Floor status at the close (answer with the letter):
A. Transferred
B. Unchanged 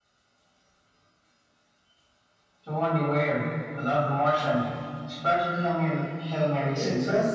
A